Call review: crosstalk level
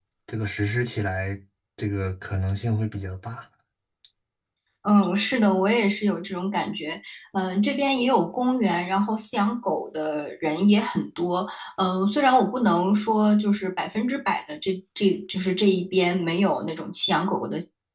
none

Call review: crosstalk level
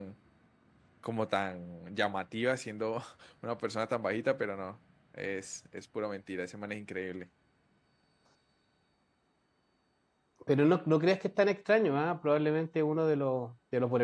none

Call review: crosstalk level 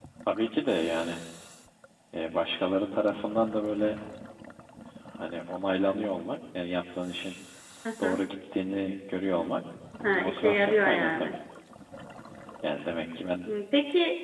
present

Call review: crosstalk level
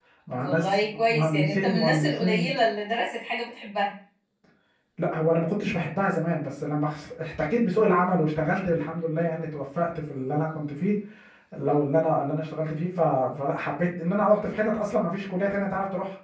present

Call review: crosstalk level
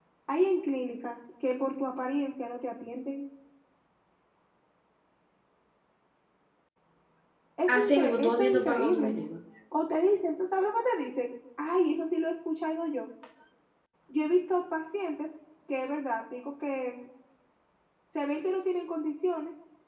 present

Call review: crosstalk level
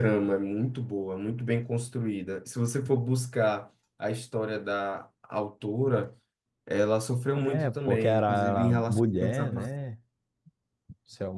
present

